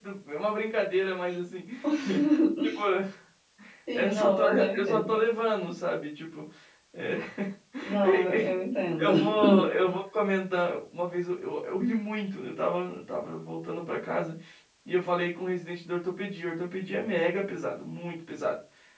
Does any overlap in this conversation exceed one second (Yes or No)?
Yes